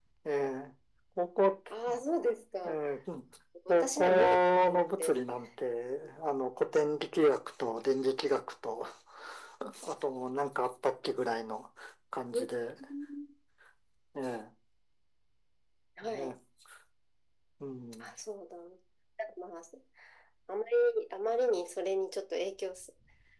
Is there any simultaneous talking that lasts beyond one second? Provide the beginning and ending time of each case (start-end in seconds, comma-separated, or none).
3.7-5.2